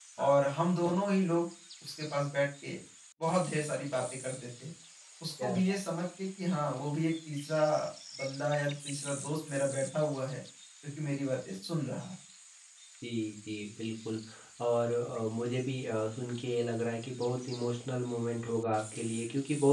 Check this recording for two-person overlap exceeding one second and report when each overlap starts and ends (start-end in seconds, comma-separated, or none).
none